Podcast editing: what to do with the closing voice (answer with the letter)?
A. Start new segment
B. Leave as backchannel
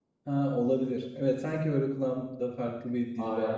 A